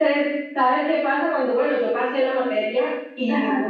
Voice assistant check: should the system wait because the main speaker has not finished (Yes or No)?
Yes